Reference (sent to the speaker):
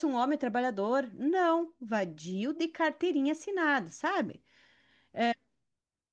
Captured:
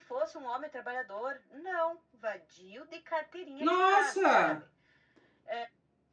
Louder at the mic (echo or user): user